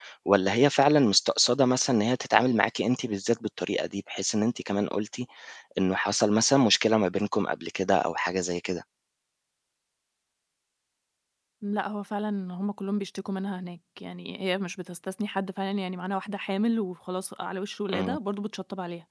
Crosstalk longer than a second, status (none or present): none